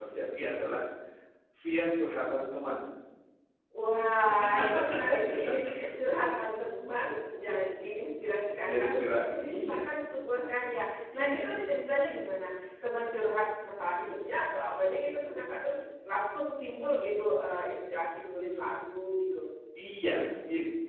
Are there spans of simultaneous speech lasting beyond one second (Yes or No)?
Yes